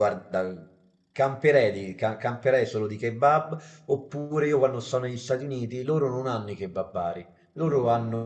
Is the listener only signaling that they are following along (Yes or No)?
Yes